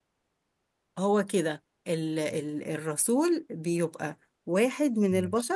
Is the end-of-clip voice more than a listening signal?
No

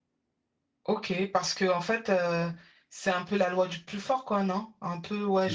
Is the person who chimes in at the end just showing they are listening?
Yes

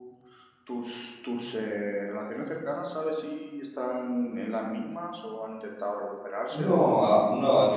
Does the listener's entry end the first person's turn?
Yes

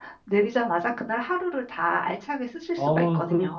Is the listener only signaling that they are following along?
No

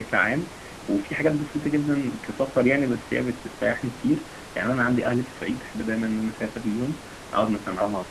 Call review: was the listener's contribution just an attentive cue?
Yes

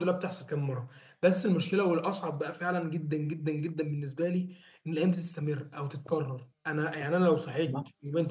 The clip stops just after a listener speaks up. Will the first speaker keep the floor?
Yes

